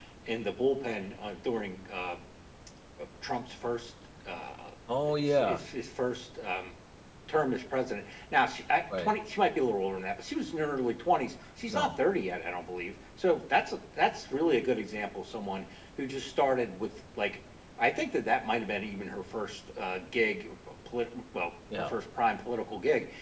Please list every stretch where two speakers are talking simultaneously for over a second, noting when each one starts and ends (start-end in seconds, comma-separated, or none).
none